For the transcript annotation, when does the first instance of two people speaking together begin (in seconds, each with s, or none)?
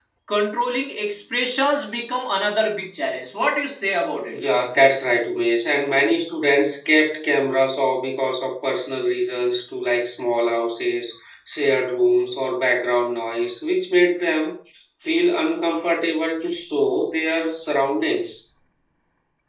none